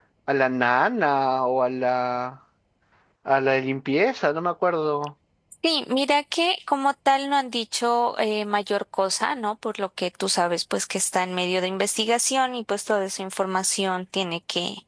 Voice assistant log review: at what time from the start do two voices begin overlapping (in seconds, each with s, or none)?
none